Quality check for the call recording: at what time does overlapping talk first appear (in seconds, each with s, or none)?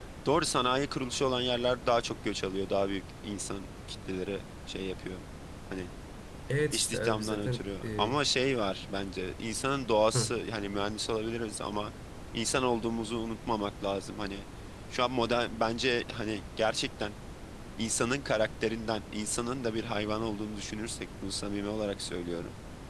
6.7 s